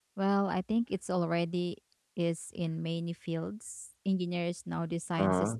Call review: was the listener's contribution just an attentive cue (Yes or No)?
Yes